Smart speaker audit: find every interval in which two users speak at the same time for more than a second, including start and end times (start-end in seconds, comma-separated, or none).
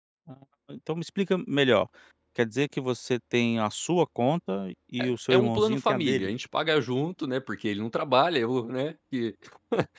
5.0-6.3